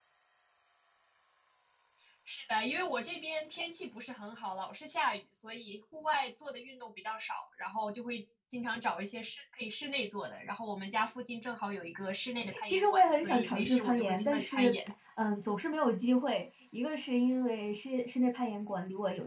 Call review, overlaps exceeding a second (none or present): present